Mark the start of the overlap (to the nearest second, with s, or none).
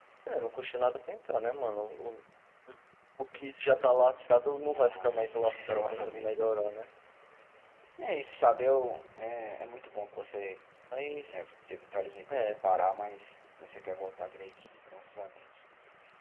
5 s